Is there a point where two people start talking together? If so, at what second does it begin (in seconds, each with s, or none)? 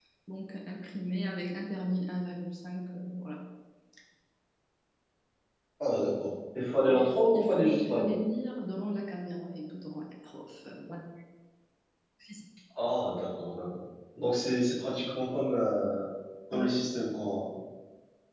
6.9 s